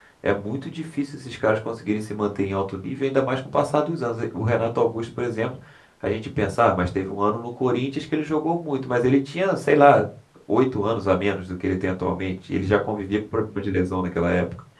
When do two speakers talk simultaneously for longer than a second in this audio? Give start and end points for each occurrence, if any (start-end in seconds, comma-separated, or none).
none